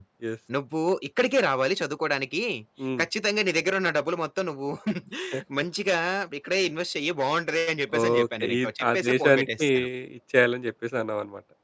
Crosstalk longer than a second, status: present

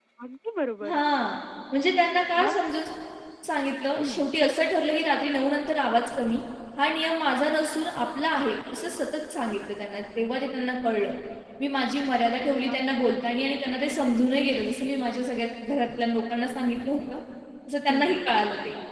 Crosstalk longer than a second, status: none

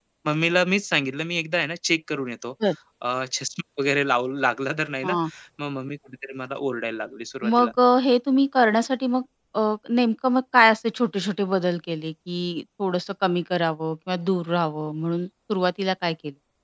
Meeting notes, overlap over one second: none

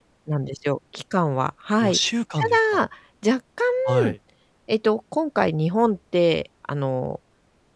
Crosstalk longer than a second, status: none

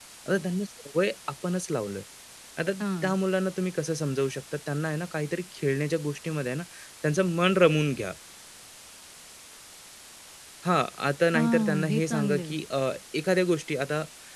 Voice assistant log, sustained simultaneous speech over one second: present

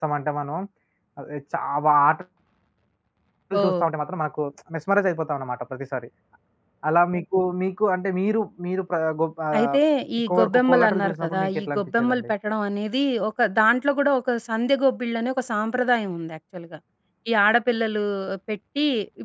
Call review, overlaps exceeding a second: present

